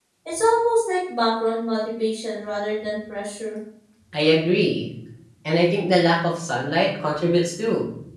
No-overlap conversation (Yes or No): Yes